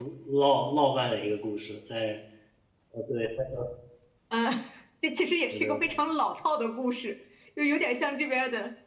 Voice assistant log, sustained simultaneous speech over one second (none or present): none